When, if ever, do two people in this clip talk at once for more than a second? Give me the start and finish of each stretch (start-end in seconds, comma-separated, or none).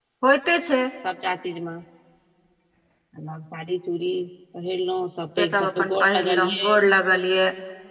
5.4-6.9